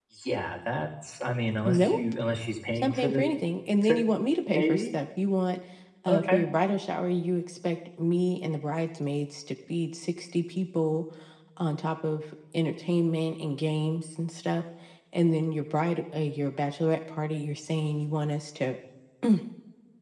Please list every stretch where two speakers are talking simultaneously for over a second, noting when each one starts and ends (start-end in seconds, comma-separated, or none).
none